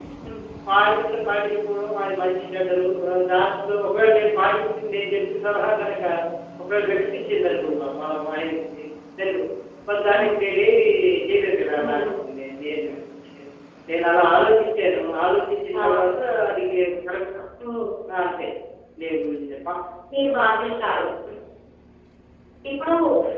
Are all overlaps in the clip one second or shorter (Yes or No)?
Yes